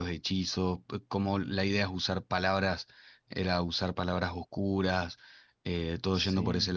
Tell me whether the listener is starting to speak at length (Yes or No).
No